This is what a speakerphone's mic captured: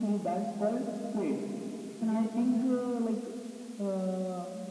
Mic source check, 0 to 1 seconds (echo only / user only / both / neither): echo only